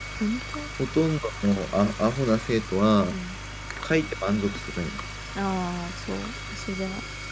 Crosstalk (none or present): none